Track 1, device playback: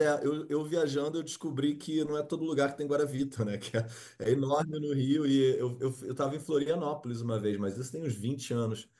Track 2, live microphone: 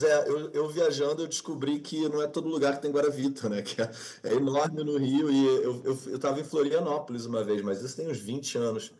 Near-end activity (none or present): none